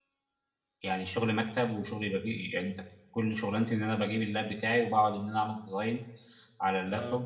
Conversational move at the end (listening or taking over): listening